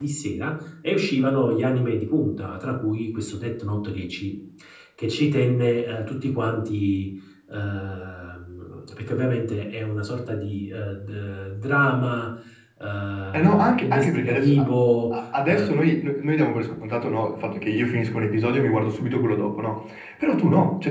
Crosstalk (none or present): present